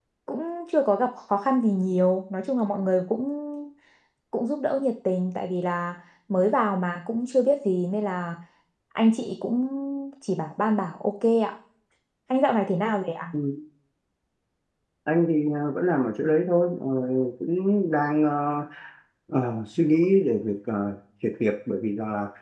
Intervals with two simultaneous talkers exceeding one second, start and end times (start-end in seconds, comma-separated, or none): none